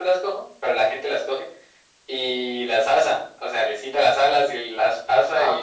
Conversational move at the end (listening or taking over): taking over